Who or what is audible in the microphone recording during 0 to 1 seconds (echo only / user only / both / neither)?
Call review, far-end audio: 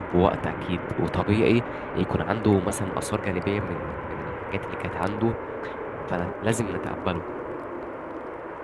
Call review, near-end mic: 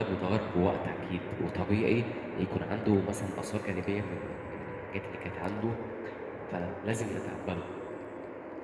echo only